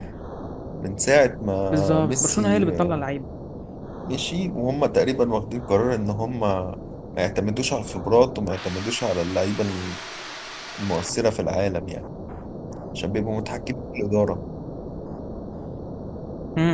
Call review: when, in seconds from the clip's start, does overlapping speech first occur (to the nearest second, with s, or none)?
2 s